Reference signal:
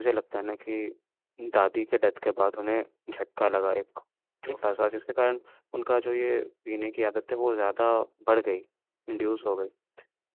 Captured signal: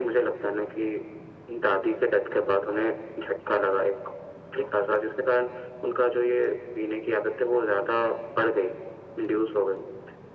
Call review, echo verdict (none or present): present